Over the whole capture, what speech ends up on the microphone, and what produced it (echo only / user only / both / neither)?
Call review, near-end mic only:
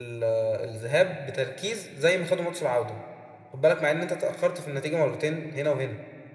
user only